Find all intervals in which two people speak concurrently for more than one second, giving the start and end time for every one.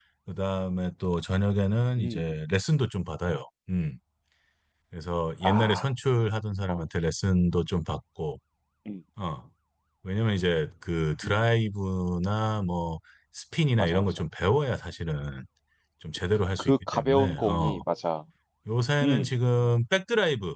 16.6-17.8

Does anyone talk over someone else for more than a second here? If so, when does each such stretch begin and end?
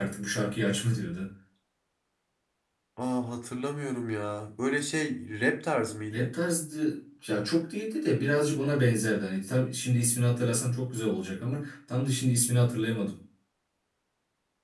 none

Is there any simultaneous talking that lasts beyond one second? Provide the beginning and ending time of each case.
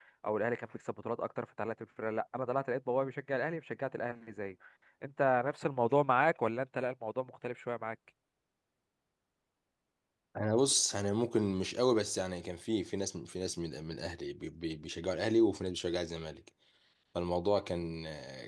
none

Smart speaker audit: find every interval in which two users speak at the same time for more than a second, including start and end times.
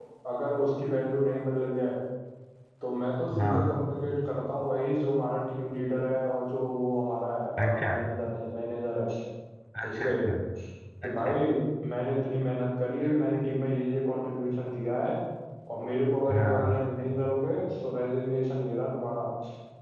none

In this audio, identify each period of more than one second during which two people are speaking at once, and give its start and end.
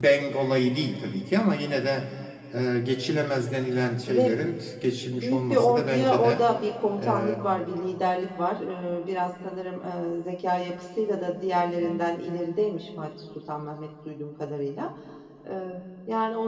5.1-6.4

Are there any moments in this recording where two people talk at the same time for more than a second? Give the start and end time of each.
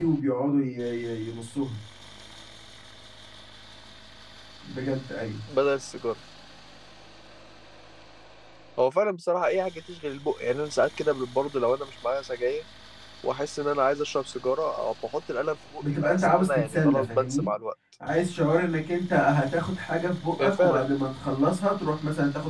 15.8-17.5

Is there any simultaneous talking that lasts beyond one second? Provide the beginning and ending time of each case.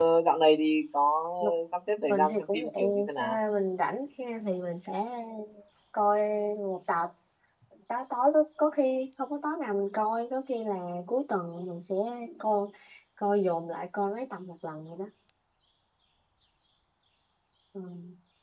2.1-3.4

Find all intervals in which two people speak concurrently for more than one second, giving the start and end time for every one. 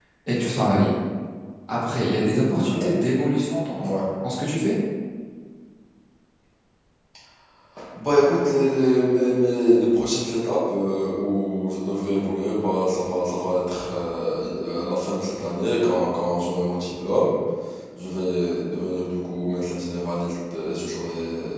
none

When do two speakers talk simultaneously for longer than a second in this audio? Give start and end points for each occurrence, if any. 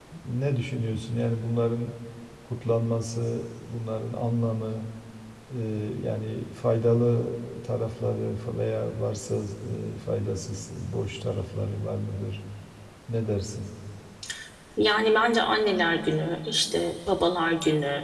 none

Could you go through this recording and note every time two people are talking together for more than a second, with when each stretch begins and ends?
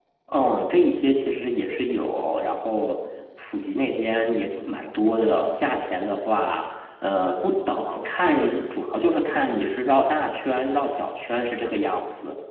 none

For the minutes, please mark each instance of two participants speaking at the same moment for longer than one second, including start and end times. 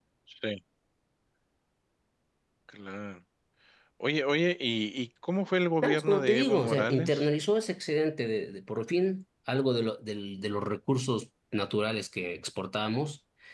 5.8-7.3

